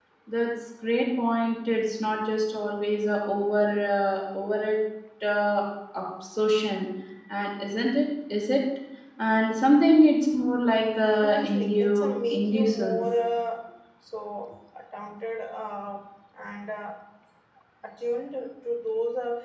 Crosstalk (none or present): present